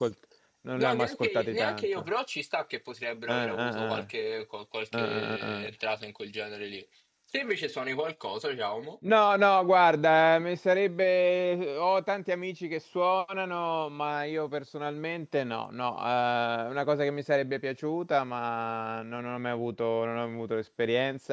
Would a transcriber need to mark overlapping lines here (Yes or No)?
Yes